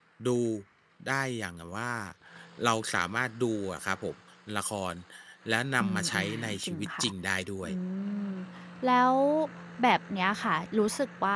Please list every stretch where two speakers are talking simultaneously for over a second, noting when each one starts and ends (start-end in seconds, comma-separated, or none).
5.8-7.1